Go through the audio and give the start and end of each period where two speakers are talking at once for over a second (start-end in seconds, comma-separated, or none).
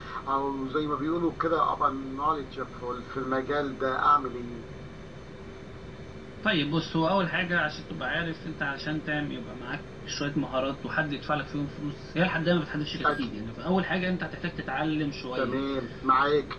none